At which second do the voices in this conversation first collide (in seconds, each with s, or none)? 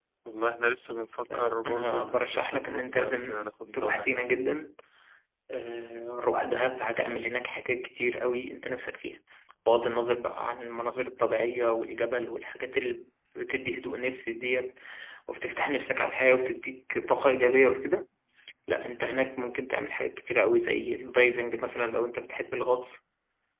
1.2 s